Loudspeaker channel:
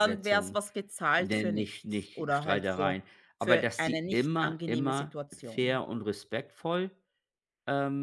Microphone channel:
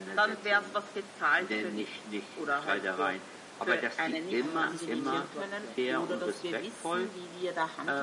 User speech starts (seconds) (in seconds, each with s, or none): 4.4 s